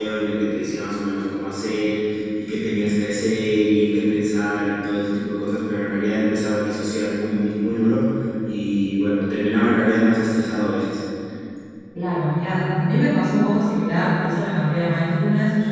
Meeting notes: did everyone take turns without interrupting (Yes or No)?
Yes